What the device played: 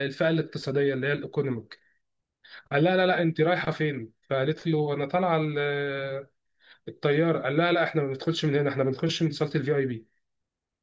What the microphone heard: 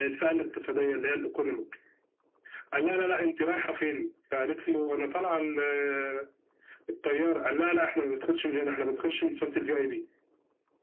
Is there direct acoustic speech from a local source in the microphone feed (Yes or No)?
No